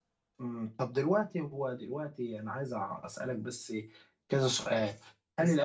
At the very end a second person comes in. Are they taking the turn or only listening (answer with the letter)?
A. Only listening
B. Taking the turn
A